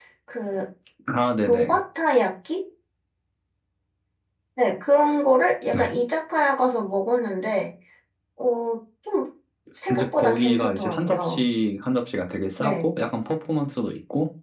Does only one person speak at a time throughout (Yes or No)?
No